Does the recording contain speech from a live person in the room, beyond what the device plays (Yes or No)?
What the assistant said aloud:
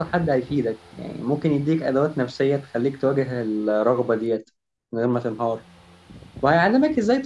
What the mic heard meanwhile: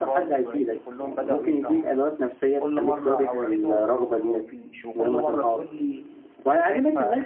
Yes